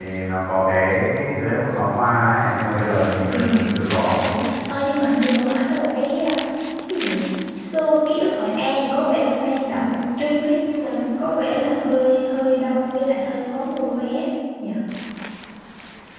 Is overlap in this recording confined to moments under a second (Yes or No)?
Yes